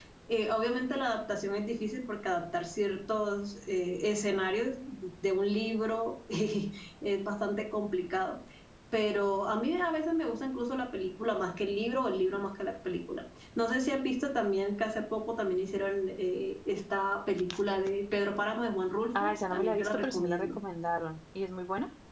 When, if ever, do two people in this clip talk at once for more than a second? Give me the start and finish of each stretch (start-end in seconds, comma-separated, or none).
19.2-20.5